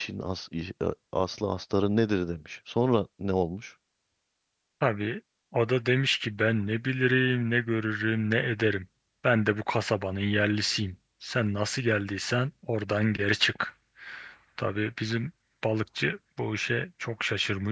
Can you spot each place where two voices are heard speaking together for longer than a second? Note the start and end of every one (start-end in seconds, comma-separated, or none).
none